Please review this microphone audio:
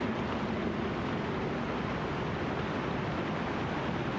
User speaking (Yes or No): No